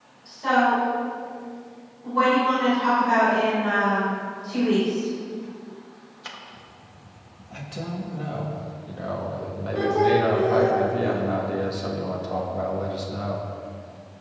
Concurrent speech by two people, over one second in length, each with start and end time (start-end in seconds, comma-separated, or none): 9.7-11.1